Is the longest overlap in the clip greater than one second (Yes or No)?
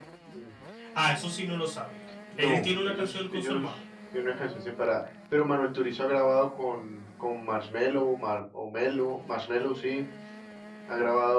Yes